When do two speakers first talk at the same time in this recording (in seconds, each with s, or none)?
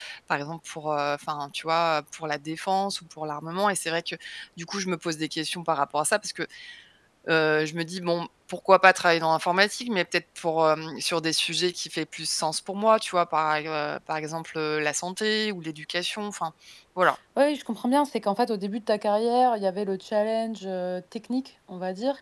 none